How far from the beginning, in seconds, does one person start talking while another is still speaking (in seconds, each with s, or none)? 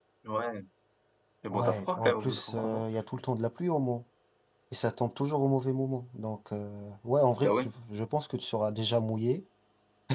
1.5 s